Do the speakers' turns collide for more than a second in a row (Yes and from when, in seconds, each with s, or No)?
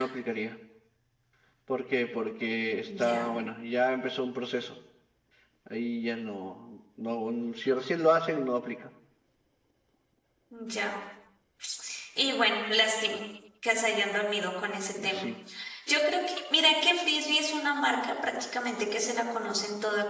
No